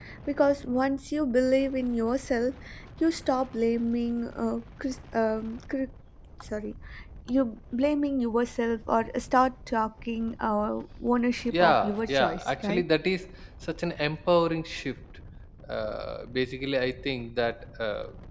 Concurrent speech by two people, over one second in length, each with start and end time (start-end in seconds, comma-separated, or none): 11.5-12.8